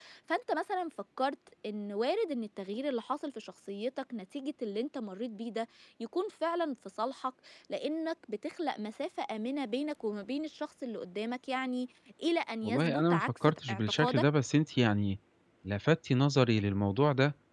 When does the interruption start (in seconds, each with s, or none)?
12.6 s